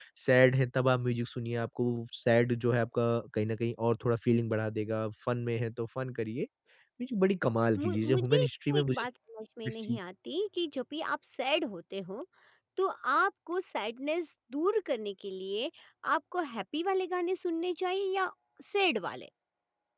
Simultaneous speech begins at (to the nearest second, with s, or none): 8 s